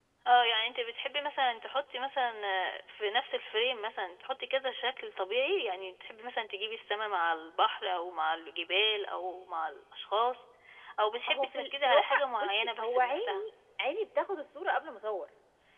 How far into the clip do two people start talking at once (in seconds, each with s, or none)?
11.3 s